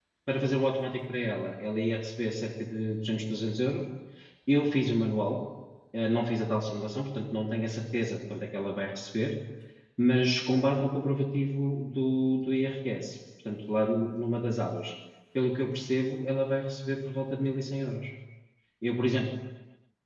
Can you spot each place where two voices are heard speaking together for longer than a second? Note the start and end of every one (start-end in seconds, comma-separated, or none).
none